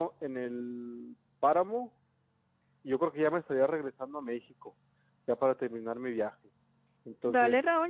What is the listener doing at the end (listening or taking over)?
taking over